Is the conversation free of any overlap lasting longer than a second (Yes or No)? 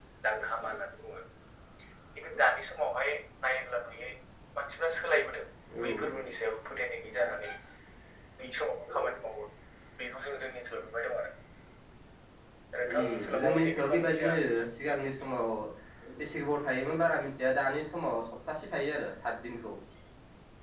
No